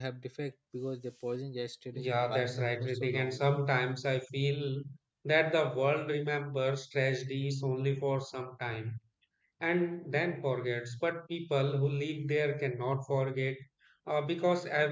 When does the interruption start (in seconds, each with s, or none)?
1.9 s